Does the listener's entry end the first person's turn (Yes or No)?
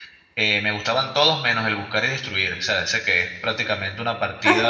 Yes